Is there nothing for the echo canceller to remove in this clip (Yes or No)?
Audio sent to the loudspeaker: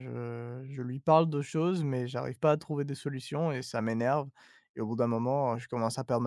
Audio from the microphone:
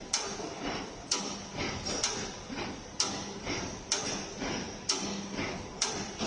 Yes